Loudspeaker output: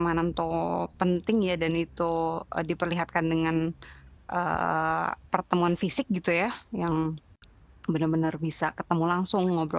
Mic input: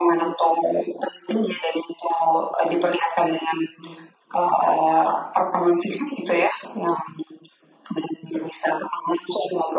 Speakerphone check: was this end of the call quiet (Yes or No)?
Yes